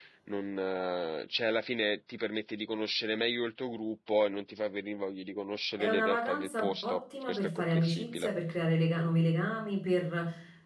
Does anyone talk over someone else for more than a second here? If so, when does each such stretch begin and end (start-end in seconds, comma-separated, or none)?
5.8-8.3